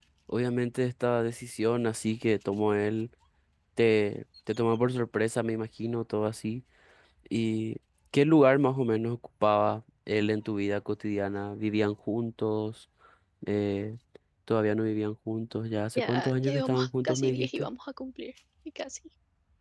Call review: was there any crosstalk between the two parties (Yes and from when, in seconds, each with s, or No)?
Yes, from 16.0 s